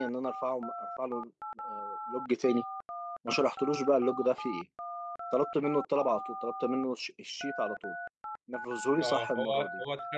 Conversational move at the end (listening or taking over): taking over